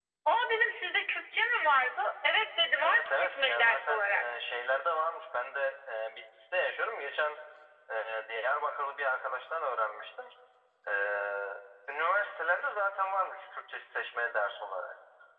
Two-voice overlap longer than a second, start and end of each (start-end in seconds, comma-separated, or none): 2.8-4.2